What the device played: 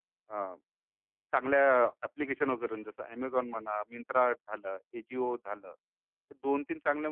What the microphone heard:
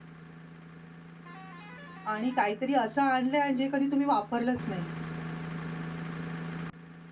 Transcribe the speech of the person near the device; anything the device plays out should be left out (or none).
आणि काहीतरी असं आणलंय आणि जे कधी तुम्ही वापरलंच नाही?